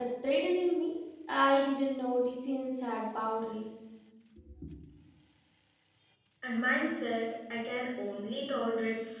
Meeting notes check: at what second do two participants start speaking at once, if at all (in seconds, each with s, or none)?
none